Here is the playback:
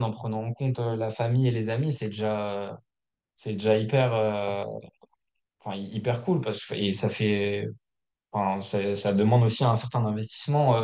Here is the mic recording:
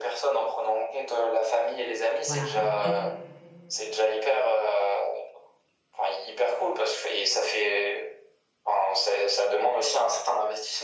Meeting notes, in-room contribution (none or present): present